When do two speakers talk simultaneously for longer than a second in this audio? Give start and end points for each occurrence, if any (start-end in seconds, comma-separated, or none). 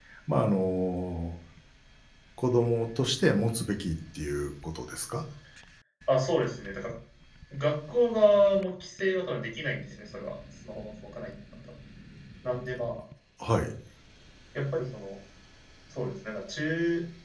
none